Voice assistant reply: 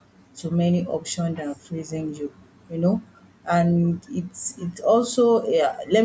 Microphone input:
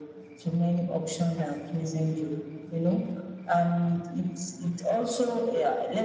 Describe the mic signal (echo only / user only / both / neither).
echo only